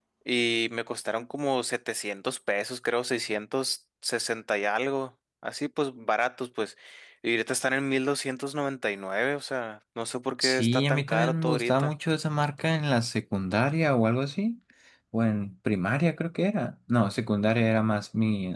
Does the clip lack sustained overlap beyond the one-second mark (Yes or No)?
No